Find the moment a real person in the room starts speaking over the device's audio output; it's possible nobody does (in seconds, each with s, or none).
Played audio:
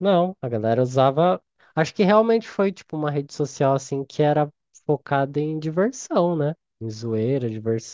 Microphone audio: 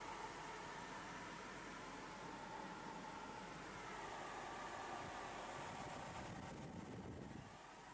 none